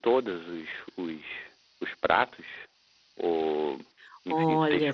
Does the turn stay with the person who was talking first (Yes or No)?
No